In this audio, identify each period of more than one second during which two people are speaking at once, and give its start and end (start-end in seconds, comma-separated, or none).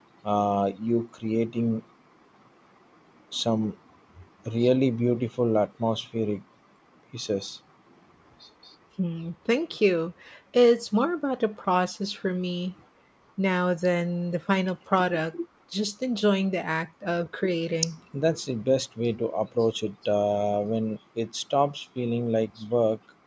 none